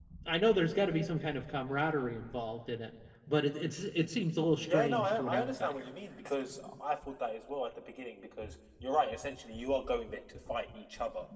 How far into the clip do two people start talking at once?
4.6 s

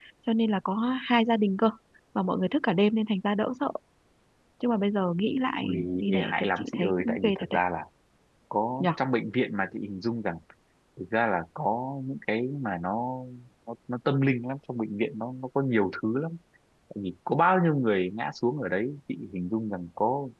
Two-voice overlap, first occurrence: 5.6 s

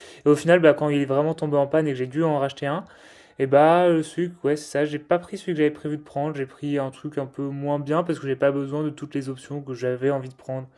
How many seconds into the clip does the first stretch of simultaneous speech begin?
none

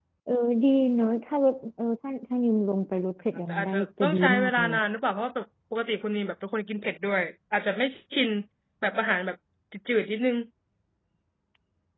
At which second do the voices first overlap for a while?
3.5 s

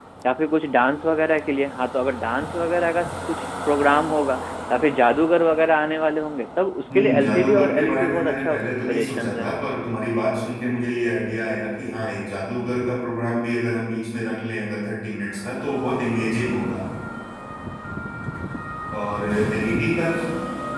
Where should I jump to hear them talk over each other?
6.9 s

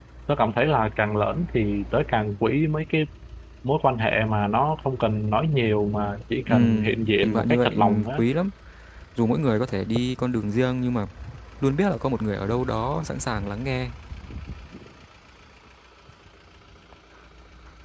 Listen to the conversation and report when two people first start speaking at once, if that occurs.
6.5 s

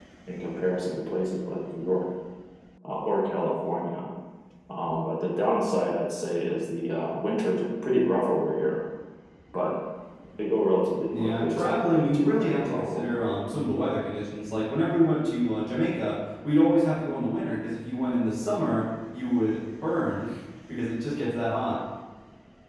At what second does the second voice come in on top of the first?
11.2 s

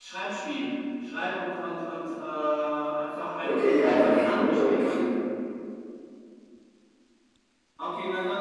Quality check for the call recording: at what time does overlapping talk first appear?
3.4 s

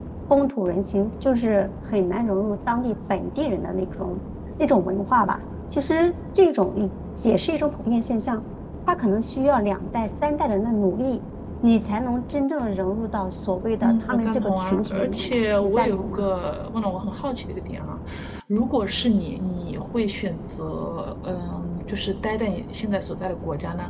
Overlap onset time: 13.8 s

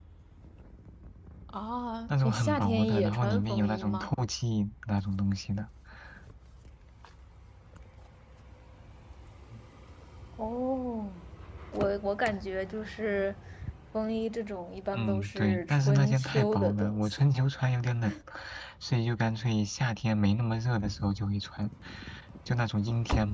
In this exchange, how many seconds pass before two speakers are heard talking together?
2.1 s

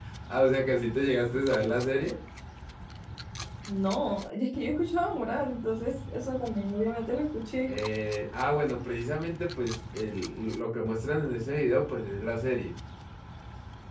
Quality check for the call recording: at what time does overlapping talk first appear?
none

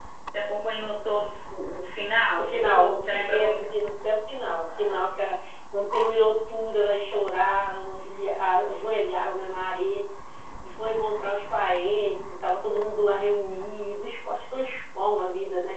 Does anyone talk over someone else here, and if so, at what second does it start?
2.4 s

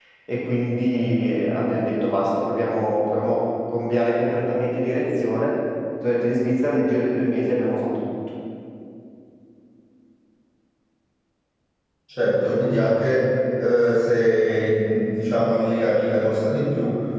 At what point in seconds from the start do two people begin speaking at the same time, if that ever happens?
none

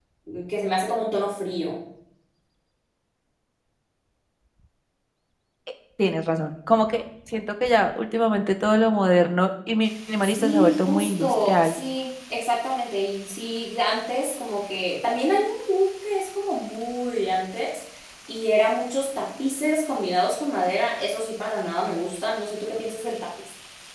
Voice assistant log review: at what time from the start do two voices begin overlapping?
10.2 s

